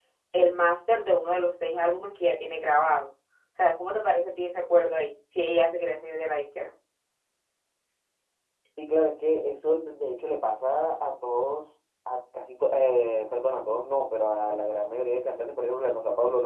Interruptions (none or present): none